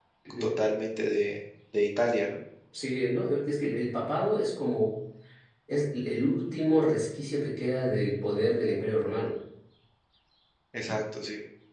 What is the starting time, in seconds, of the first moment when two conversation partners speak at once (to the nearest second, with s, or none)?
none